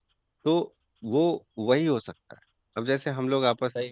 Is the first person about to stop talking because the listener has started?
No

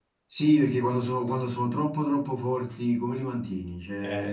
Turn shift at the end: No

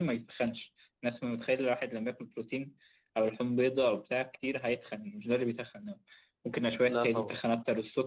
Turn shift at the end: No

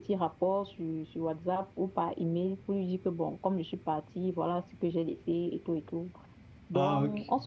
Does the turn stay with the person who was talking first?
Yes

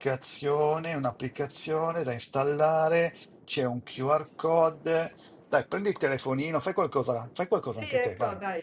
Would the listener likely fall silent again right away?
No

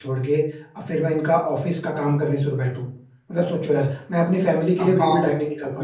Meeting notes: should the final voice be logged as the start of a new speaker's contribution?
Yes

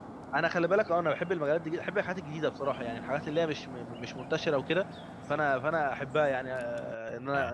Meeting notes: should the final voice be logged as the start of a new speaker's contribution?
No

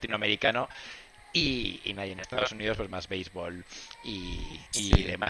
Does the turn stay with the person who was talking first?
Yes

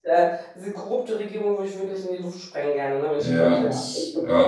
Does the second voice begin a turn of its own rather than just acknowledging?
Yes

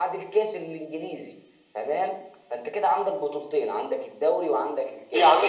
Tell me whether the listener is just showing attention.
No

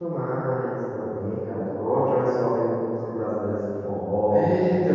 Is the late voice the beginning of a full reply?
Yes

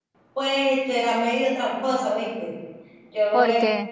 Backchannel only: Yes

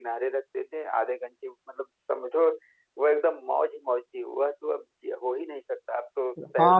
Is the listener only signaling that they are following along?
No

